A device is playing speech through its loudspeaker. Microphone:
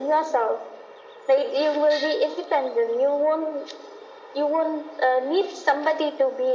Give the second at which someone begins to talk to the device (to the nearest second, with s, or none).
none